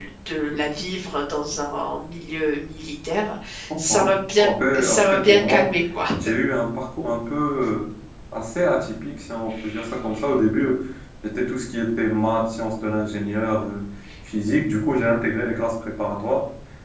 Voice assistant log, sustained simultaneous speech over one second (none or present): present